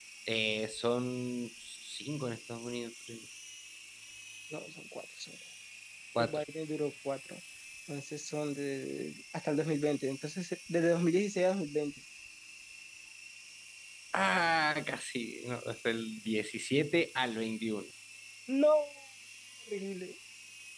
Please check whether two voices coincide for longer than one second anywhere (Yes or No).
No